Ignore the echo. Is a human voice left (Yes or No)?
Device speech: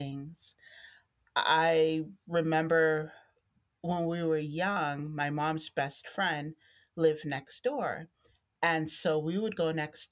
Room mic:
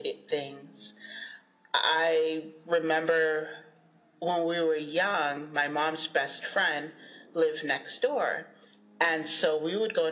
No